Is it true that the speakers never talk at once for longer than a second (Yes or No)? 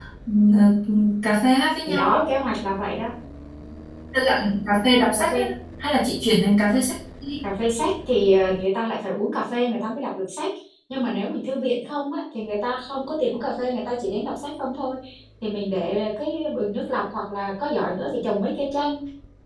Yes